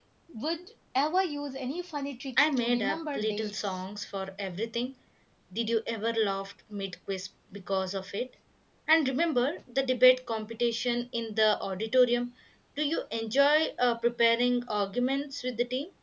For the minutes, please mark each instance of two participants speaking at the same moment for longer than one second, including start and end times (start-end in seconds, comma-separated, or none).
2.4-3.8